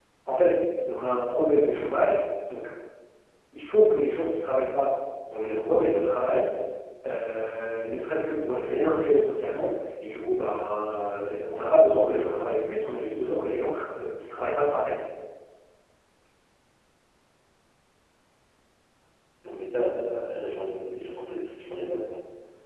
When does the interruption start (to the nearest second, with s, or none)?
none